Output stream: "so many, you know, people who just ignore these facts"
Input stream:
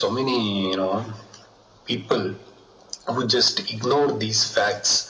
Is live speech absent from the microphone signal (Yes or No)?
Yes